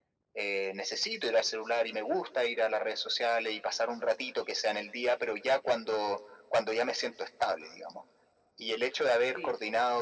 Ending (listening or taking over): listening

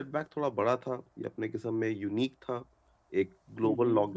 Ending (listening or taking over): listening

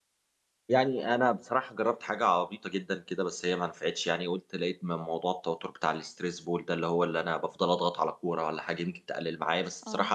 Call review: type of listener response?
listening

